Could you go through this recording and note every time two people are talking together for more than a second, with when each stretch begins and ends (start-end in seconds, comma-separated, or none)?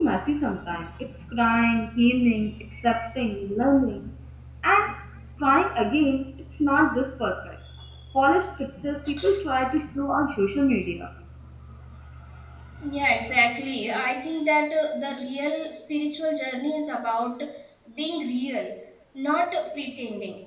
none